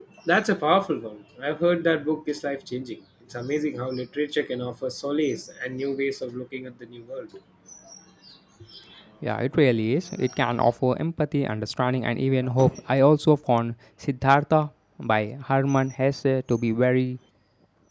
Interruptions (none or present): none